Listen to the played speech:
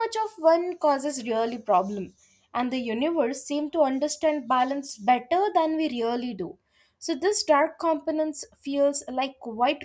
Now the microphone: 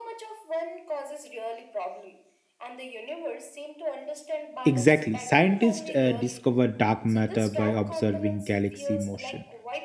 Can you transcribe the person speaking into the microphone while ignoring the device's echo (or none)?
Exactly. Scientists uh, discover dark matter by observing galaxy motion.